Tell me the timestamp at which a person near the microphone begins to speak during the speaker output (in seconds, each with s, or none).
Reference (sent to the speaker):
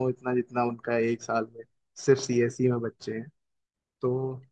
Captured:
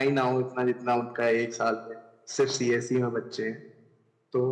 none